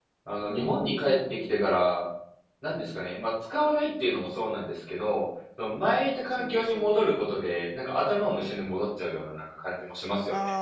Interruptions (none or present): present